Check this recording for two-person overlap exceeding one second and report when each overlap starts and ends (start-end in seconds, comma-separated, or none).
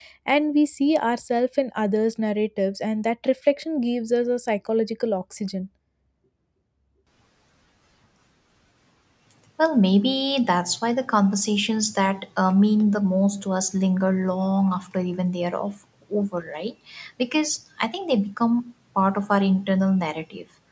none